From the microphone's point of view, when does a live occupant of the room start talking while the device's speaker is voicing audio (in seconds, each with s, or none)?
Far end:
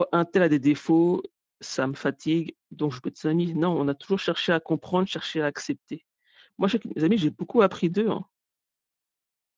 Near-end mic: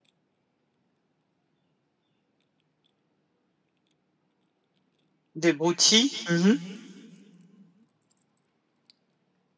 5.3 s